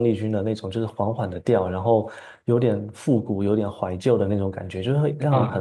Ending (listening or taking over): taking over